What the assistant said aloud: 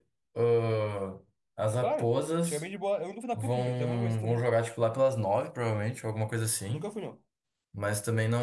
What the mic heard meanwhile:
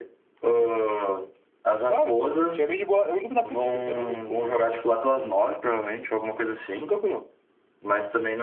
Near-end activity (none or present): none